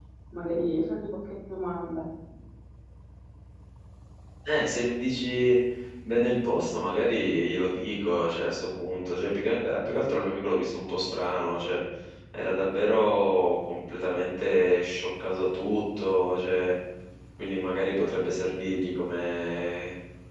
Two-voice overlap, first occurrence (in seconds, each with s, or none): none